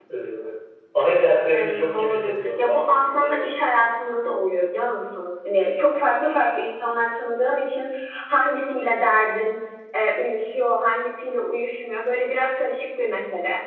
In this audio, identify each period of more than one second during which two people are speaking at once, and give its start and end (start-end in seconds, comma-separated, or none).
1.5-3.4